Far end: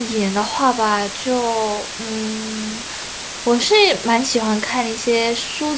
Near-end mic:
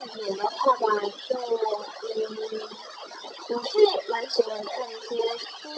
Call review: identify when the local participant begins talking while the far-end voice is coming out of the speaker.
none

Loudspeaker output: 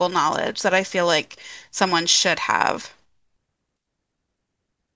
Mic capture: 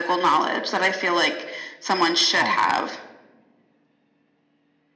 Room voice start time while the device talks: 2.3 s

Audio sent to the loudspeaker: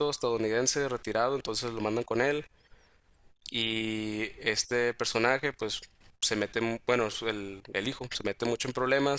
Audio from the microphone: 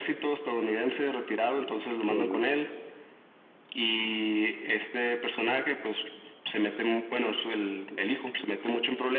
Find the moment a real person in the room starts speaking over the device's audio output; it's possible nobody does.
2.0 s

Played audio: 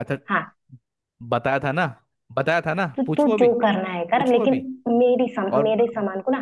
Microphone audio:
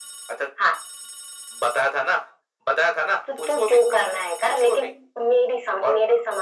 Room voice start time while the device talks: none

